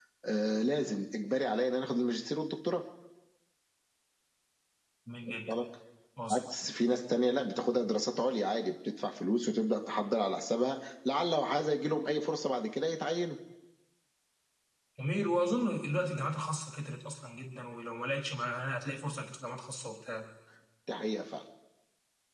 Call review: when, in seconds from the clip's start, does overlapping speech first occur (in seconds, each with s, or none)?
none